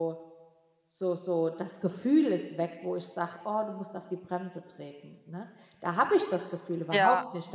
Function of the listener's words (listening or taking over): listening